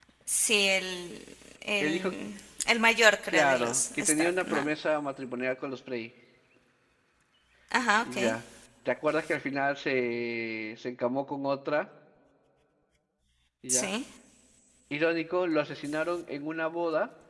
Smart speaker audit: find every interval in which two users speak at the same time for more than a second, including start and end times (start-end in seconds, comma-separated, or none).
3.3-4.6